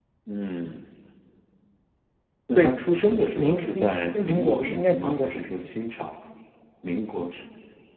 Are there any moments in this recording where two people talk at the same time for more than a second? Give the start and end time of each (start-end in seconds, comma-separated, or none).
3.4-5.6